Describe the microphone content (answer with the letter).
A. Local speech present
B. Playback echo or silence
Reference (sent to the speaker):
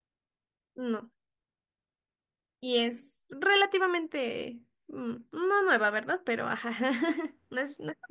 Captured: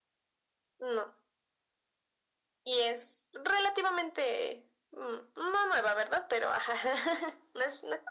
B